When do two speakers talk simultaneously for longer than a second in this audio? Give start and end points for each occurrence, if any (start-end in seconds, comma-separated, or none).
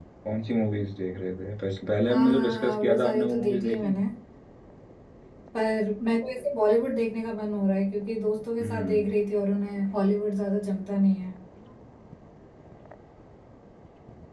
2.1-4.0